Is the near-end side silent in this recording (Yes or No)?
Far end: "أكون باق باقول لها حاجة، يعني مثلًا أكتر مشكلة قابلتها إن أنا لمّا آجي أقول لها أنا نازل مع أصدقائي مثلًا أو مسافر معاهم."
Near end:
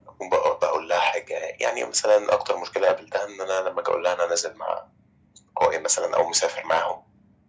Yes